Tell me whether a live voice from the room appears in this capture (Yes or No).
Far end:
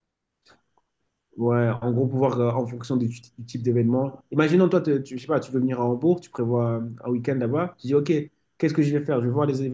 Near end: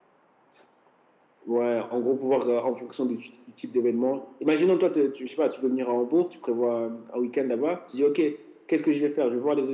No